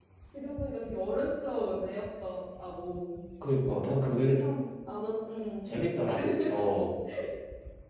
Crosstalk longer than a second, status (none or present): none